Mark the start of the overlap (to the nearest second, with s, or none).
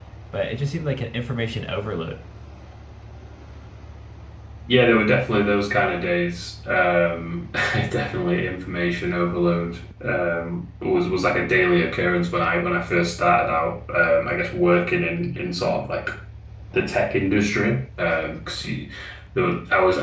none